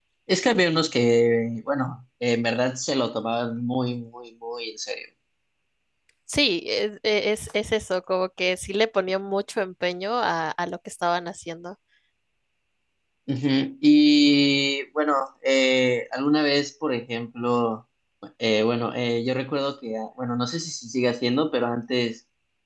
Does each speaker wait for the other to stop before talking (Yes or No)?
Yes